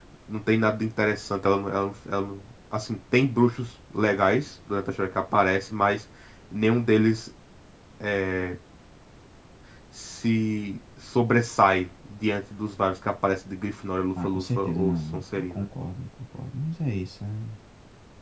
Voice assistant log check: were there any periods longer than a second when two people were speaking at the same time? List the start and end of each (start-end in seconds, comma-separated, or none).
14.2-15.7